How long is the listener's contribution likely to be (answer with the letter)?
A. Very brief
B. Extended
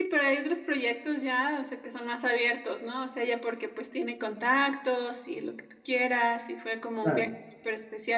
A